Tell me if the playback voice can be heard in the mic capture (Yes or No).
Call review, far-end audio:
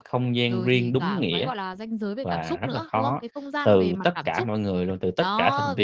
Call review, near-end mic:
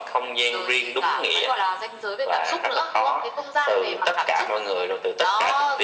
Yes